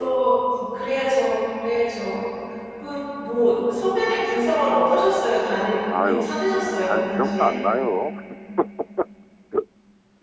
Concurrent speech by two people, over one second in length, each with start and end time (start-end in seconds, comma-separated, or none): 6.0-7.5